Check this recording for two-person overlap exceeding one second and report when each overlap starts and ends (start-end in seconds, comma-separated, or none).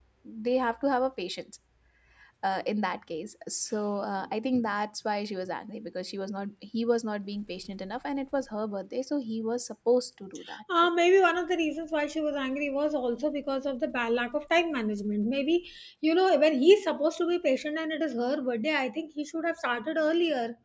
none